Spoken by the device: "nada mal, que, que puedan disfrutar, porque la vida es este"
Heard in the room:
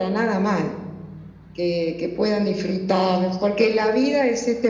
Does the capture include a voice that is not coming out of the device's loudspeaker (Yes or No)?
No